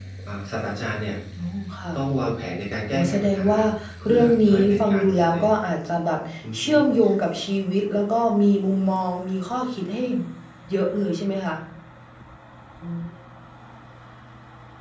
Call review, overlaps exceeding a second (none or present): present